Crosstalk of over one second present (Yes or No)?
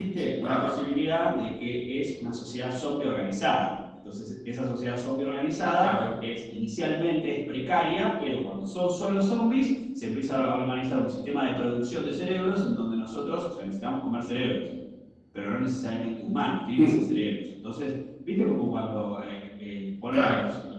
No